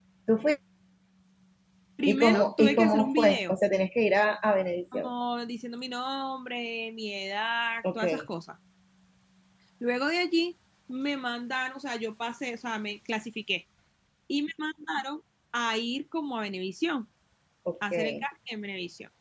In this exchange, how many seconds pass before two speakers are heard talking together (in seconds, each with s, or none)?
2.0 s